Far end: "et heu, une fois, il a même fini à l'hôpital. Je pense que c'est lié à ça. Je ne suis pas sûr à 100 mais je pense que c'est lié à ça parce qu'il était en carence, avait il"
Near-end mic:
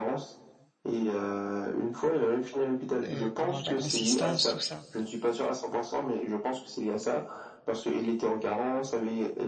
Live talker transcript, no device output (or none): mmh, comment? De la consistance, tout ça